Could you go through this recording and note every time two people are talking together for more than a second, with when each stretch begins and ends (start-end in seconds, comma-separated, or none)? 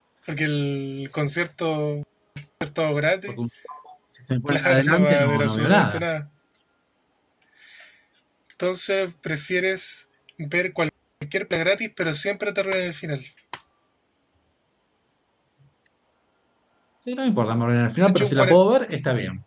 4.5-6.0